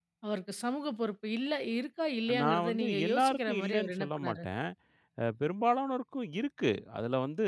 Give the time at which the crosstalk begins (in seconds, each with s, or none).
2.3 s